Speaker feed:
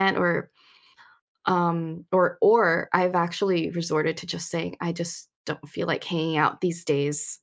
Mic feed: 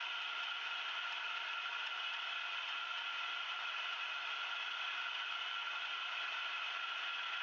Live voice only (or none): none